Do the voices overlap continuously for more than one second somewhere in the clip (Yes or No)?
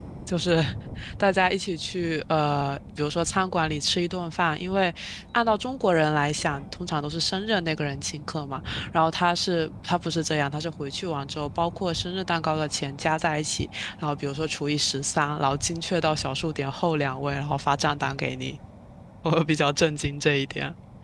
No